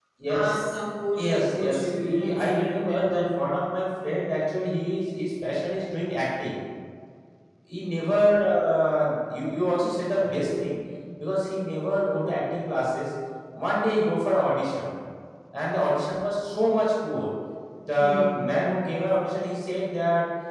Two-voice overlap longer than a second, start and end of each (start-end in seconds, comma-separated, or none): 1.2-3.4